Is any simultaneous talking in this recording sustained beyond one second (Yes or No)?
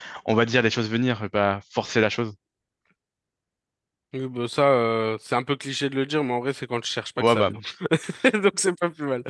No